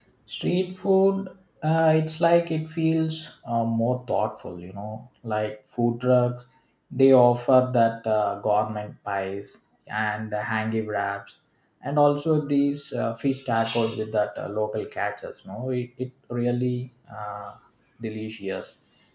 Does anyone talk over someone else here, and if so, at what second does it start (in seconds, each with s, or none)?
none